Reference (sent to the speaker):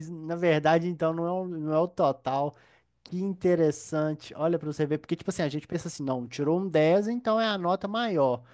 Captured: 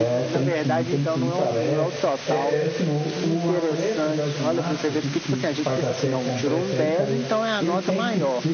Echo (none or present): present